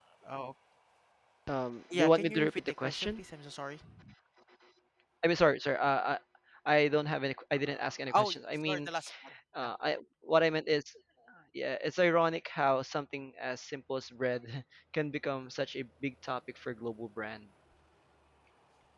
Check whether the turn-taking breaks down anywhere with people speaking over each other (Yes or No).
Yes